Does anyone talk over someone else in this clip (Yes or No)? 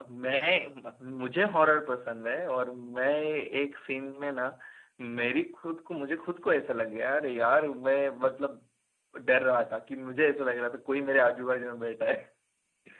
No